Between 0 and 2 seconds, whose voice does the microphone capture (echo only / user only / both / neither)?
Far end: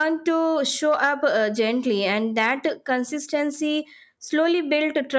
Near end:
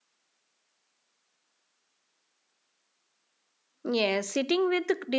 neither